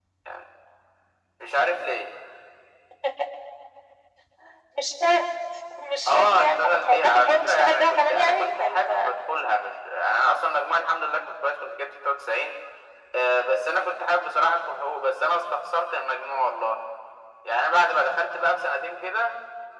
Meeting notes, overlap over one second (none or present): present